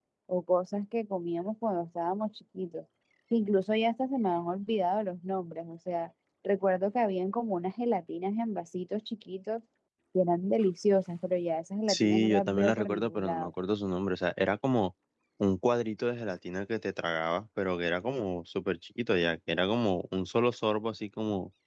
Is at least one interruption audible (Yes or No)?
Yes